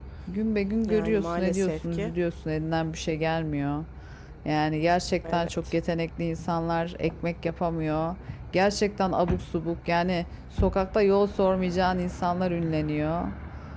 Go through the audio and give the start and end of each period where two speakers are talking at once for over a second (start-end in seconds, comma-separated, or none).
0.9-2.1